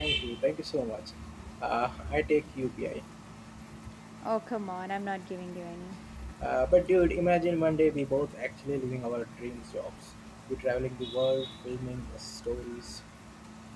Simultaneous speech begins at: none

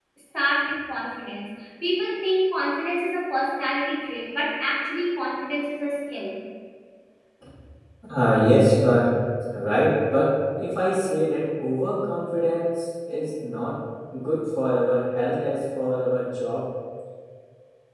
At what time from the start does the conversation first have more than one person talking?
none

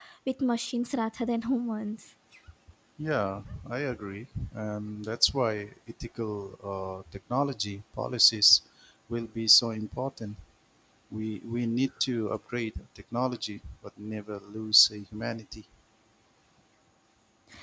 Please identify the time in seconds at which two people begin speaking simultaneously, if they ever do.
none

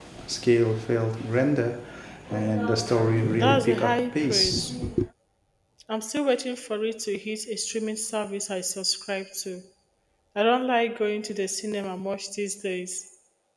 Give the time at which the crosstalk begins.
3.4 s

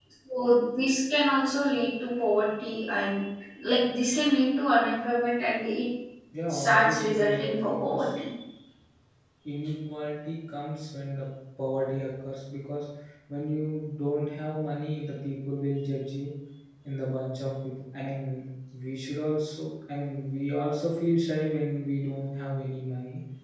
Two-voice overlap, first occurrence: 6.5 s

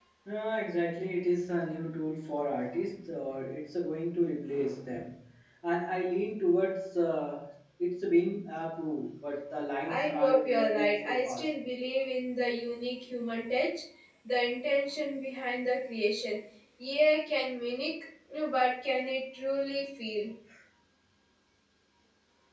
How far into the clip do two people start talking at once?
9.9 s

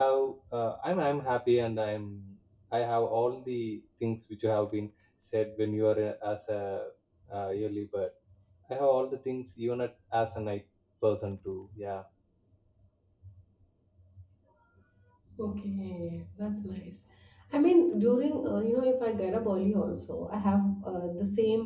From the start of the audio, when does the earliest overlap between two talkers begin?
none

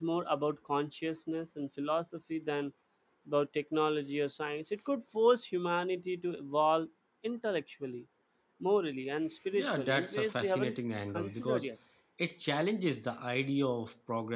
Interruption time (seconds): 9.5 s

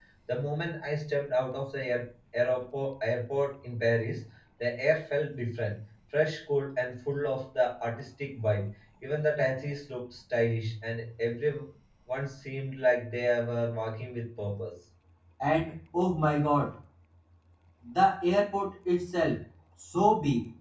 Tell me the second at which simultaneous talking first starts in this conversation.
none

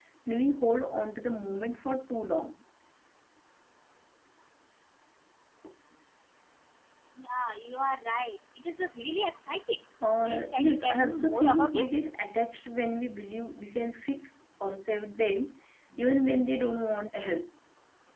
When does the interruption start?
10.2 s

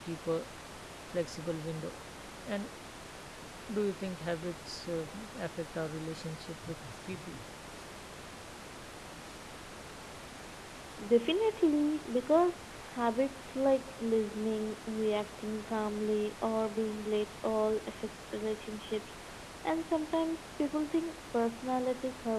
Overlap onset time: none

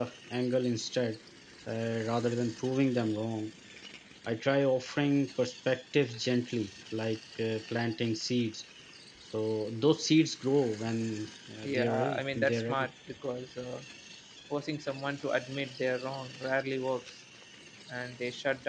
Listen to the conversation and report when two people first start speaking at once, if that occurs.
11.6 s

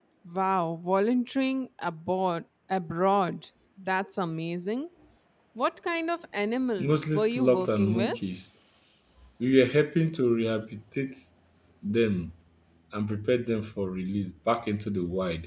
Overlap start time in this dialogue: 6.8 s

